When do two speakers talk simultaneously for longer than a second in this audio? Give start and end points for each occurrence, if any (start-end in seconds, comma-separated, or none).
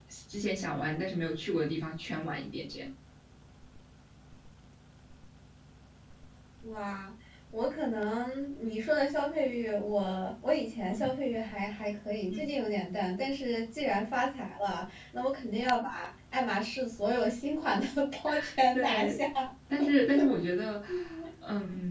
none